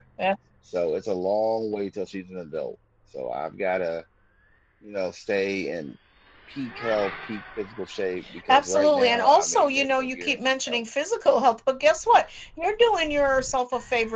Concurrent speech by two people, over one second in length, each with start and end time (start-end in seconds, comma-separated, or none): 8.5-10.8